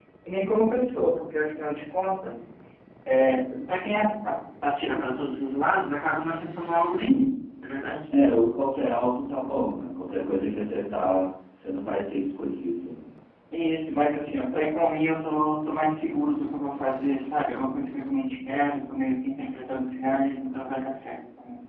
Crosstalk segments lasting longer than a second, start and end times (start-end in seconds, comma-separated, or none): none